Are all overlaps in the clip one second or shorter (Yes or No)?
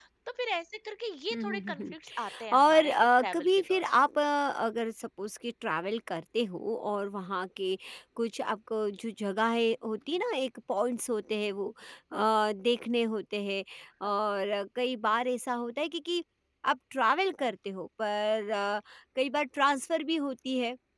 No